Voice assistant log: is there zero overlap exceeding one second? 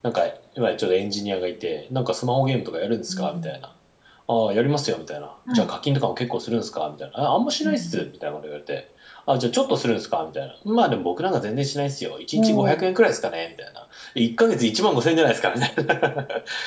Yes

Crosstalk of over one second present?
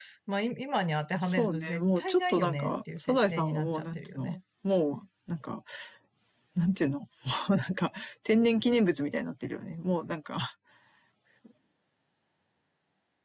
Yes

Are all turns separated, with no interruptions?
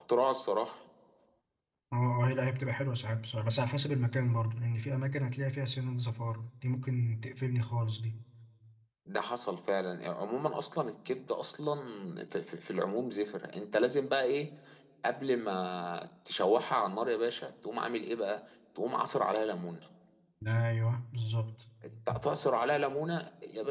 Yes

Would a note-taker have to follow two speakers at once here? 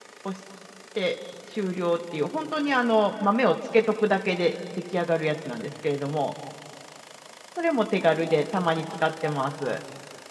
No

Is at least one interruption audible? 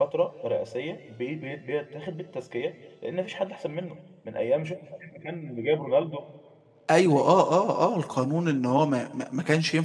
No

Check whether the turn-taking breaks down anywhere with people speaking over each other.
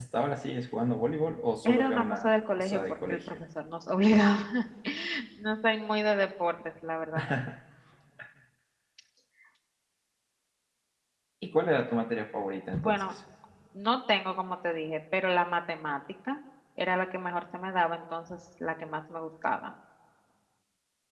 Yes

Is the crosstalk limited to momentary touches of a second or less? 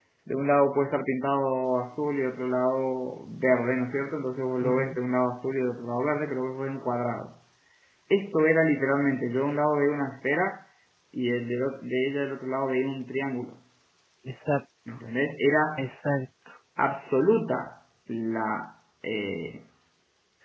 Yes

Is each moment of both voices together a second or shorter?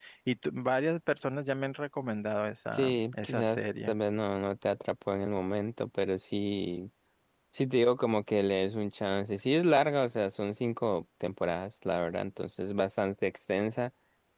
No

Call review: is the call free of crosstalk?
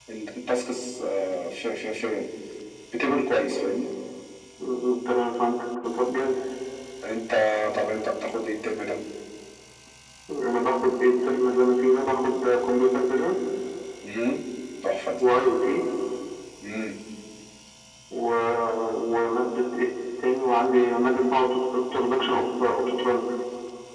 Yes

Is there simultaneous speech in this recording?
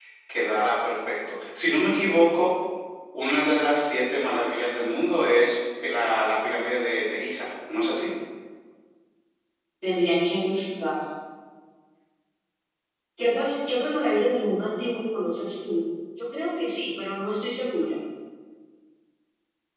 No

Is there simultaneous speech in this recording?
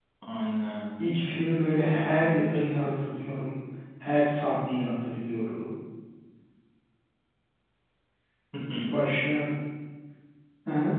Yes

